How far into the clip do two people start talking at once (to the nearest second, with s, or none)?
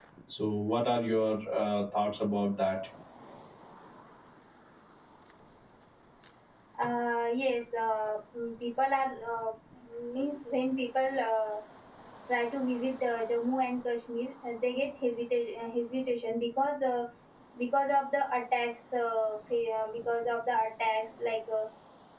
none